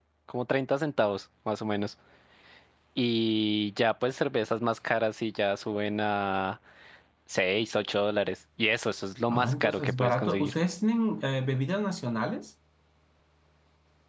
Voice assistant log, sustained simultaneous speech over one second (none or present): present